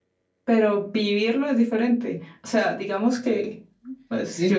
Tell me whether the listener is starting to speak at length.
Yes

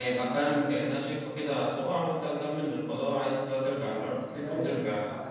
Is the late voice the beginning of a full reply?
Yes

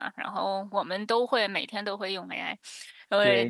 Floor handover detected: Yes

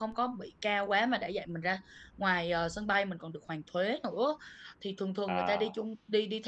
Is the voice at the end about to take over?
No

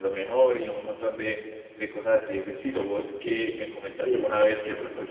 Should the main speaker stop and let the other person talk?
No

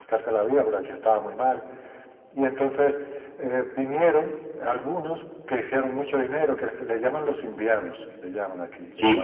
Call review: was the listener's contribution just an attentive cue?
No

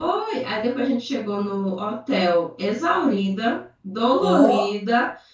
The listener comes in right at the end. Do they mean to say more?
No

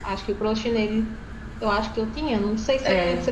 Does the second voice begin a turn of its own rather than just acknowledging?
No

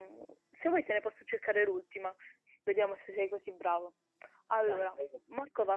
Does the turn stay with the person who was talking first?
Yes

